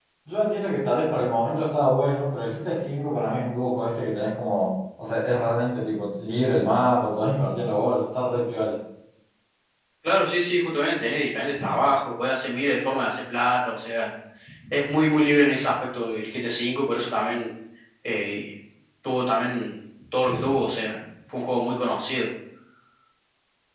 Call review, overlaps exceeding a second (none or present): none